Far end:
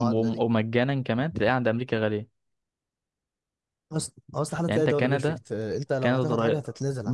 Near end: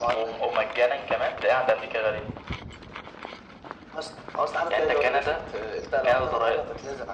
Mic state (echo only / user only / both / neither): echo only